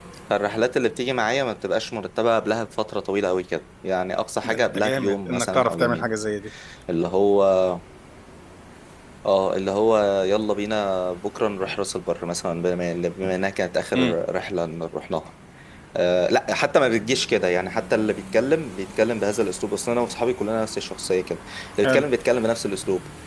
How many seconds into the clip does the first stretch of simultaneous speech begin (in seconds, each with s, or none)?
4.4 s